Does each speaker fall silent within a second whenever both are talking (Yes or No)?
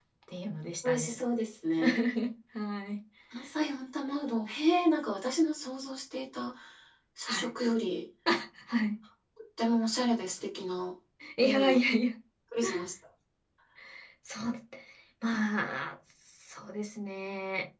Yes